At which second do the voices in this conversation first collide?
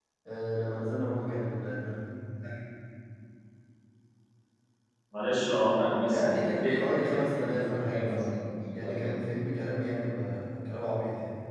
6.1 s

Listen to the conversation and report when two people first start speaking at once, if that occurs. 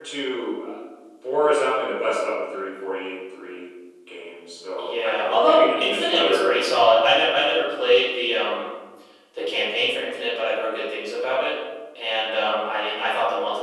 4.8 s

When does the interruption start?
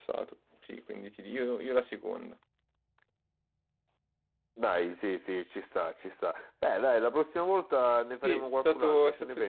8.2 s

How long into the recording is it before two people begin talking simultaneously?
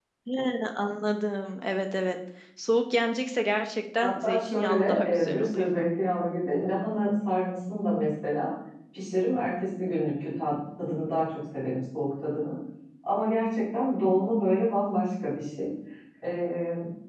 4.0 s

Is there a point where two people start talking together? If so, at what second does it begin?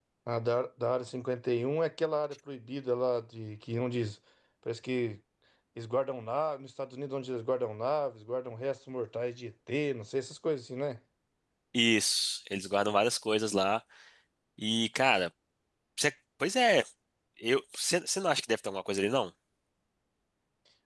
none

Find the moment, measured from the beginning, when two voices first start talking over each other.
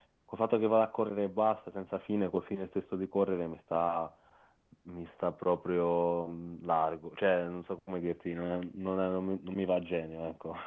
none

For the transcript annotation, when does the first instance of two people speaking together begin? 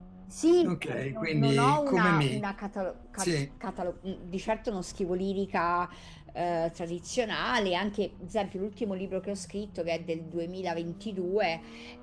1.1 s

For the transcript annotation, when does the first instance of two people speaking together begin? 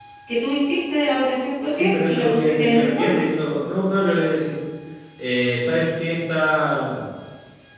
1.7 s

